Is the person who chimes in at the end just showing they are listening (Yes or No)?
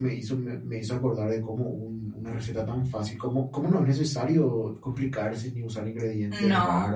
Yes